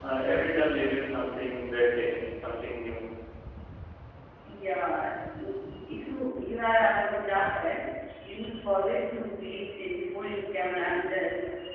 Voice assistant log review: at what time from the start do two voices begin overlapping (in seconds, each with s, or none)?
none